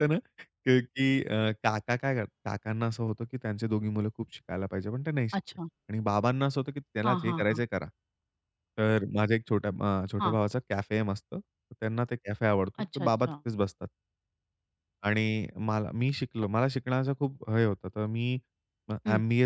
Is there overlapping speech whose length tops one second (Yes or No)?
No